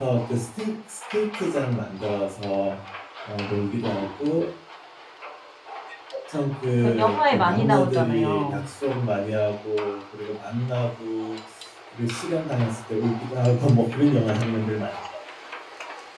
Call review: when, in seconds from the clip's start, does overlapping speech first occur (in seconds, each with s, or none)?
6.8 s